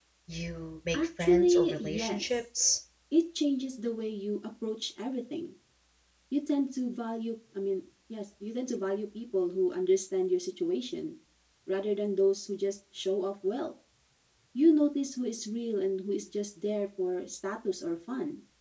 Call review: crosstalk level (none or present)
present